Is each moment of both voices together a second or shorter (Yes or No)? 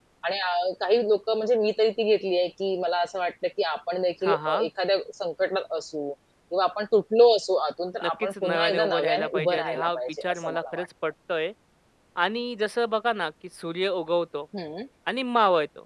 No